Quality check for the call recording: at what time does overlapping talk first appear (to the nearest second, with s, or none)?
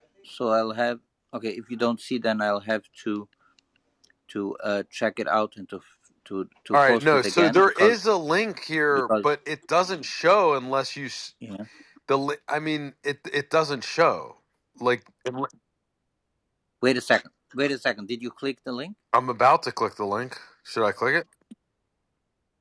7 s